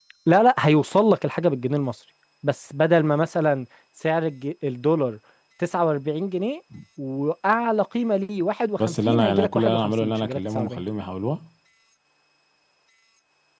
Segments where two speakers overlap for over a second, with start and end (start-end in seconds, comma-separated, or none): 8.8-10.8